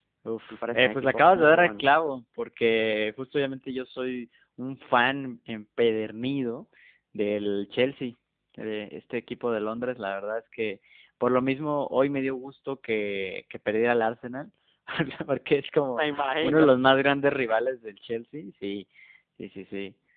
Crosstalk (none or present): present